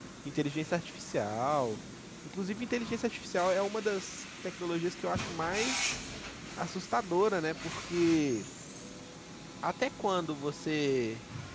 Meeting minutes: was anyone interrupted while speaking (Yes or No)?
No